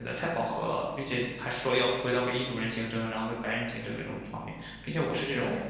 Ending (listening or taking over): listening